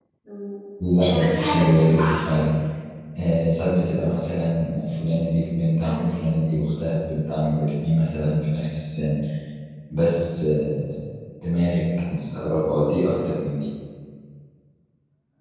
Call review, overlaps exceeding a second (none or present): present